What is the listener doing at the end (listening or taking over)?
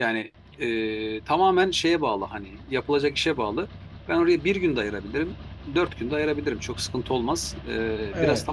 taking over